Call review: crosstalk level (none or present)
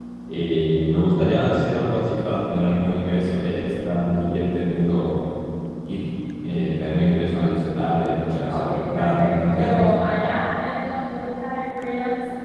present